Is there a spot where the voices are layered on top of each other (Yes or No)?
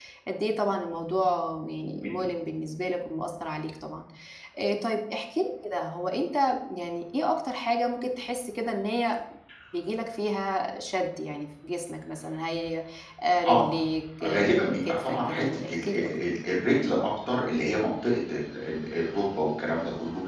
Yes